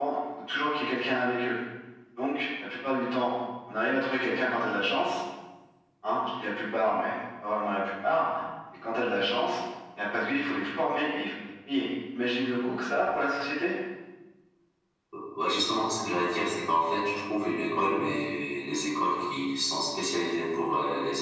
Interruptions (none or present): none